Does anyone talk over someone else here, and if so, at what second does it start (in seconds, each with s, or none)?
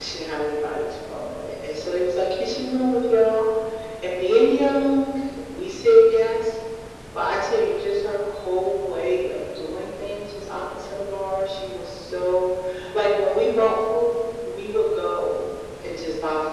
none